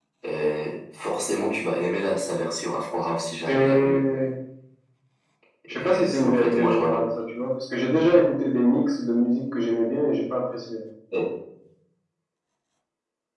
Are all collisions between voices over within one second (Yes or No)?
No